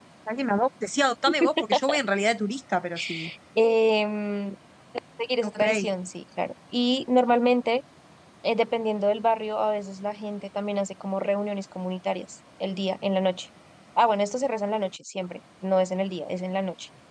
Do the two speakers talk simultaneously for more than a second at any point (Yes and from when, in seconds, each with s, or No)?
No